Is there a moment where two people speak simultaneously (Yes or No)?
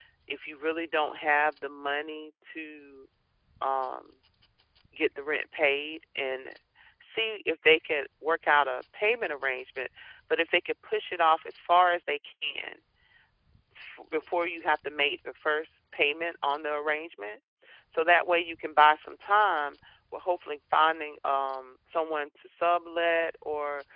No